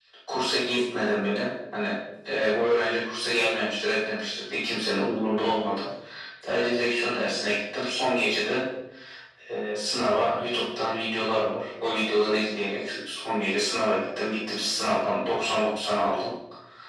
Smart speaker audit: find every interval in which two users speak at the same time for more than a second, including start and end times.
none

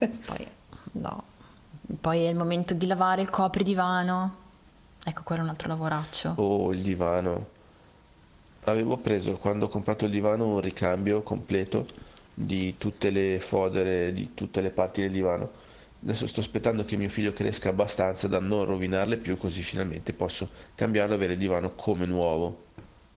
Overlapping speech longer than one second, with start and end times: none

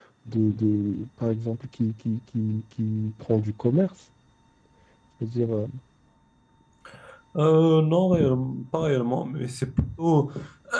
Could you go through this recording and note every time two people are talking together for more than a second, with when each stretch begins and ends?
none

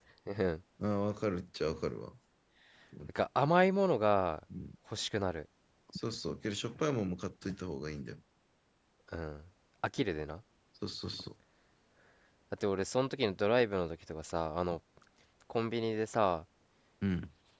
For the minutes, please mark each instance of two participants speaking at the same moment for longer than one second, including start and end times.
none

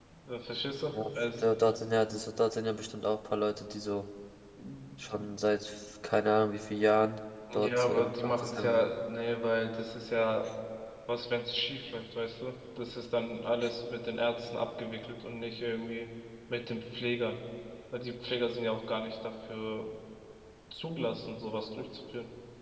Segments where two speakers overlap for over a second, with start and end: 7.5-9.0

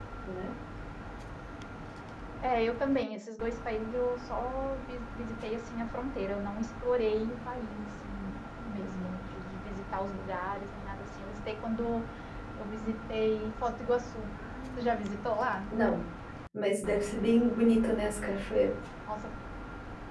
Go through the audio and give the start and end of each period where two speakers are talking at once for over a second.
none

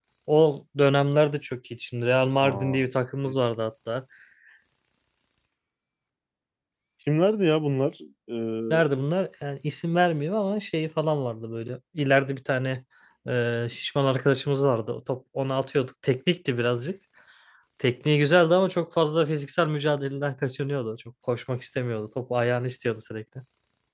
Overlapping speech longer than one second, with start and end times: none

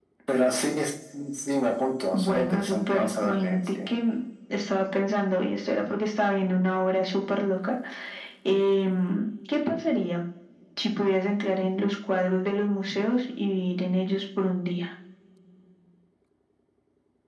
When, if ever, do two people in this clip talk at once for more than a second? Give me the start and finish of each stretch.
2.1-3.8

